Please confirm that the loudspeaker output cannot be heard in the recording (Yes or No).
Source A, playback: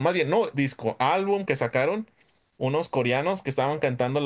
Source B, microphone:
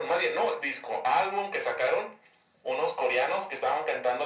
No